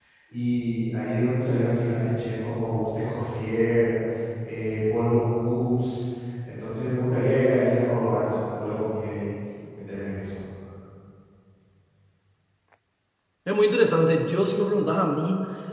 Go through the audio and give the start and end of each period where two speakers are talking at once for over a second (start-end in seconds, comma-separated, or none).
none